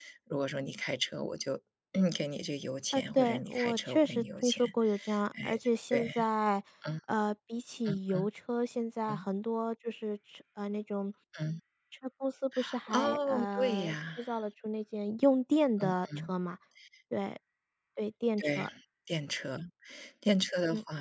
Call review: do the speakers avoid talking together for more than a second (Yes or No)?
No